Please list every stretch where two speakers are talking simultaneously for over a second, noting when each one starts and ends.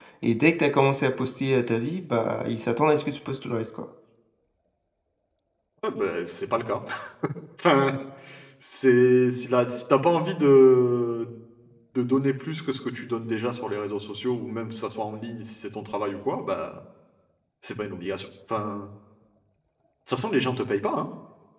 none

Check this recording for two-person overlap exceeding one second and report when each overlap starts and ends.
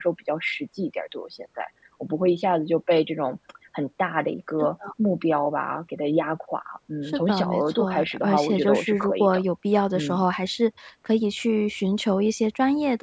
7.1-9.4

